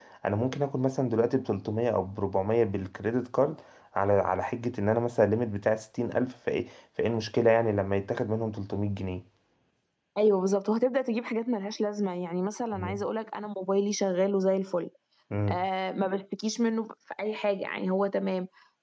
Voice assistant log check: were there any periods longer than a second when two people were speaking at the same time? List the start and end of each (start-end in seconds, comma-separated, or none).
none